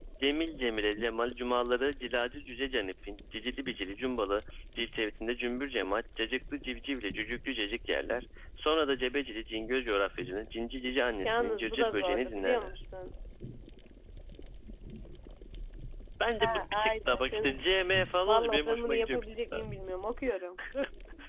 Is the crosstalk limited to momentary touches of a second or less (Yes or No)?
No